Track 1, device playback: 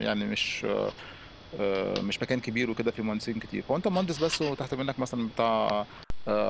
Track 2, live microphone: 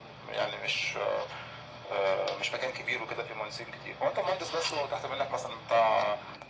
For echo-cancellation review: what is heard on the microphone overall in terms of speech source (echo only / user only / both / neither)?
echo only